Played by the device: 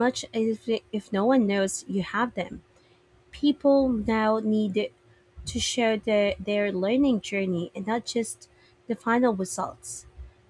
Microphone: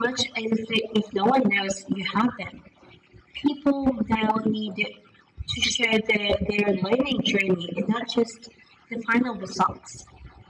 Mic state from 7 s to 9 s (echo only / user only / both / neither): echo only